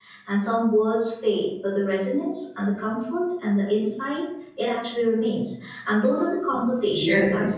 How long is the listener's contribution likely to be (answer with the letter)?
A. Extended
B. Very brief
B